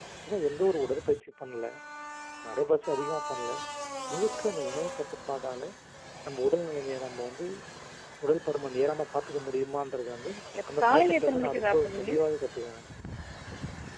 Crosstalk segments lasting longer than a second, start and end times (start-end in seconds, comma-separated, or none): 10.8-12.1